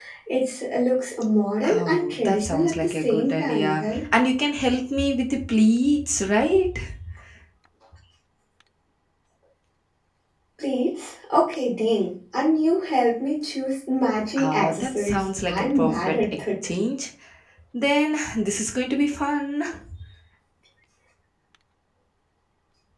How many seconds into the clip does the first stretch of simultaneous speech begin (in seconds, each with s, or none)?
1.7 s